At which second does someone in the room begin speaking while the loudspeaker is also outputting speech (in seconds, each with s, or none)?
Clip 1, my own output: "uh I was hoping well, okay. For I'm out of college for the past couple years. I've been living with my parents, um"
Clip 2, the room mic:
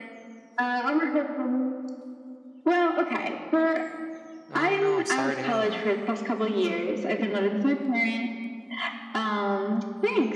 4.5 s